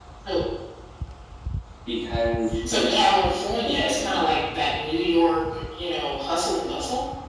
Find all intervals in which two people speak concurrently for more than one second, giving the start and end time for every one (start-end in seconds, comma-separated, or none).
none